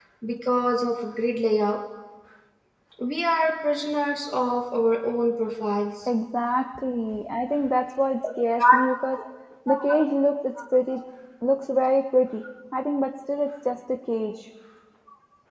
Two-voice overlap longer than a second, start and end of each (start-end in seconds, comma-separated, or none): none